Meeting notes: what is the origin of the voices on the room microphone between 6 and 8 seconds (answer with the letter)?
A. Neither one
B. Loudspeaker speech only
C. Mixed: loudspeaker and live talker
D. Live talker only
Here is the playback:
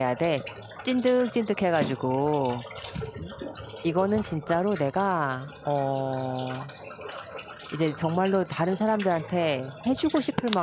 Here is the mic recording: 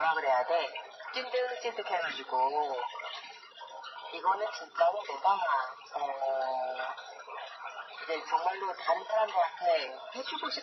B